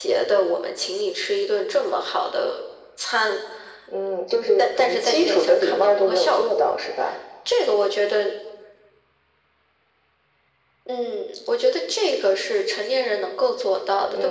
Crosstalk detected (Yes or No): Yes